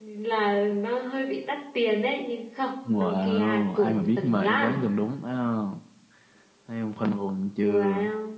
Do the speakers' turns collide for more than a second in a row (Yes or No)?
Yes